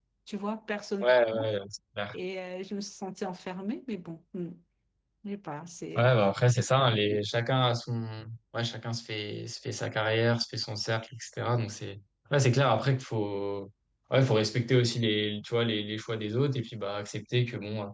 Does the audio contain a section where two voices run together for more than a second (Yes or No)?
No